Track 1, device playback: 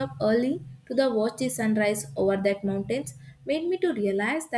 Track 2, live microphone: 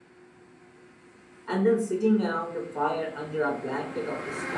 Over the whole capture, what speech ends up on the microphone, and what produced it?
user only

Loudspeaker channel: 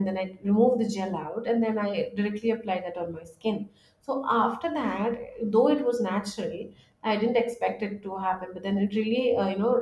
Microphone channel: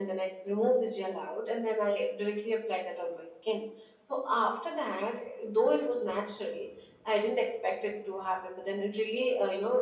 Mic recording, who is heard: echo only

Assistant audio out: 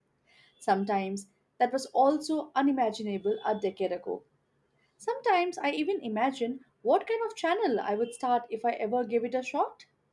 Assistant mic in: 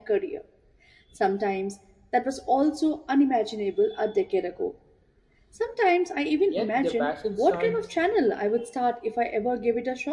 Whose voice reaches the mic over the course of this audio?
both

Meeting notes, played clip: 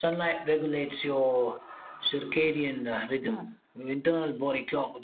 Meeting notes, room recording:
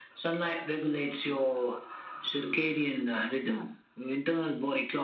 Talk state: echo only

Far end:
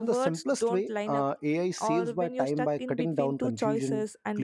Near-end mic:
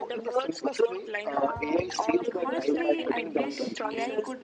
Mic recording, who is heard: both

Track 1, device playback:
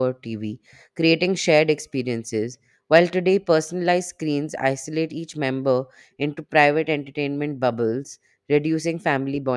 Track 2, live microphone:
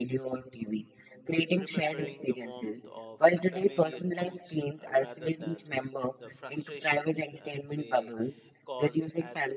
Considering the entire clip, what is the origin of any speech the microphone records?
both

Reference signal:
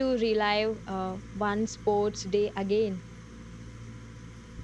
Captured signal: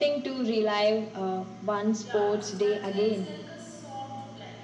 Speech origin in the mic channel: both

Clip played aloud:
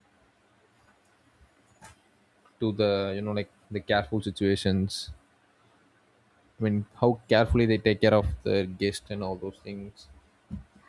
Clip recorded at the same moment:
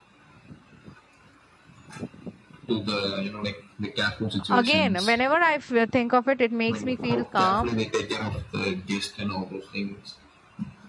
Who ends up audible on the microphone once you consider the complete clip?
both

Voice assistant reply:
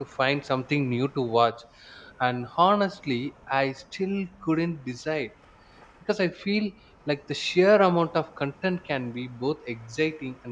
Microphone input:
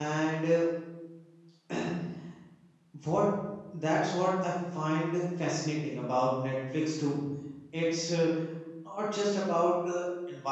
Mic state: user only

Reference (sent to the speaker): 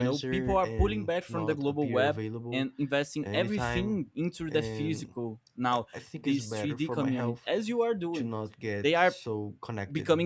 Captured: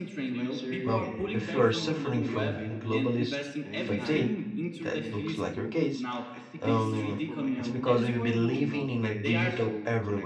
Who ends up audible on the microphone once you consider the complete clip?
both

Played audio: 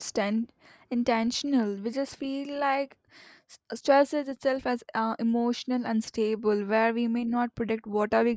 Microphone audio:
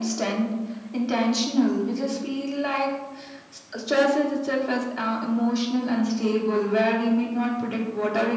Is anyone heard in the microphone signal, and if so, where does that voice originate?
echo only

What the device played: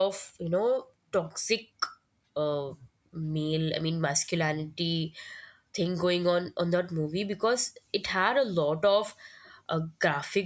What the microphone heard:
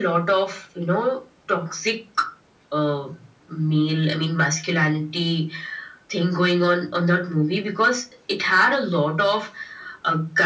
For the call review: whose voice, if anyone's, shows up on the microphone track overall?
echo only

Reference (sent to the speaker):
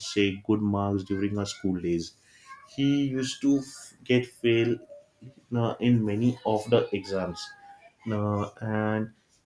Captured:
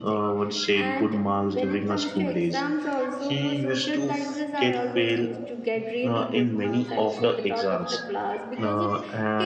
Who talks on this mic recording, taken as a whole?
both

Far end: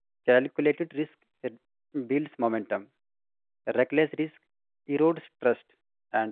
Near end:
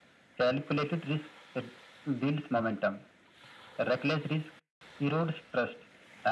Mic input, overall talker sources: echo only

